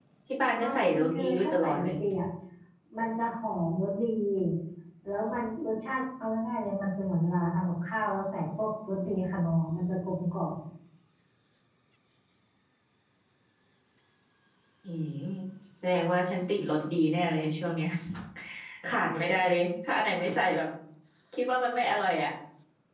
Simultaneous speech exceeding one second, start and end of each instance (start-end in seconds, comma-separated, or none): 0.6-2.0